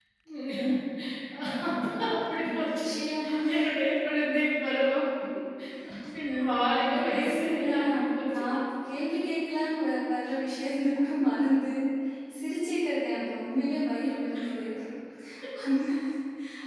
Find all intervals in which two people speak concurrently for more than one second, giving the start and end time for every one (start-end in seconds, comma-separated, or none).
6.2-8.3